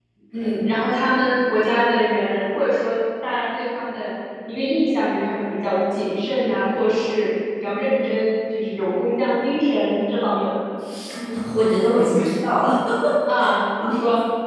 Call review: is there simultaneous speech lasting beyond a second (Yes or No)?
No